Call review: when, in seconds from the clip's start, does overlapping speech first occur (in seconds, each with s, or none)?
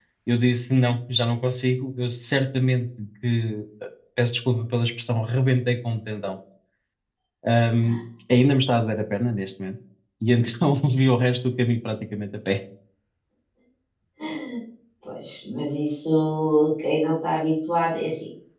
none